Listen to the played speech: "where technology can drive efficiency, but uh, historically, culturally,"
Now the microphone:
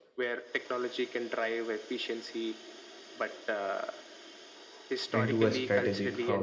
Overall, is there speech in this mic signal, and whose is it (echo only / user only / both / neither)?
both